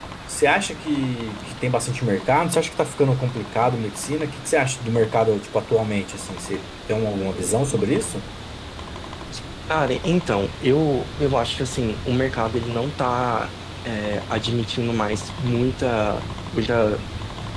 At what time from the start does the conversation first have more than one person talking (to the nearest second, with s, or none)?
none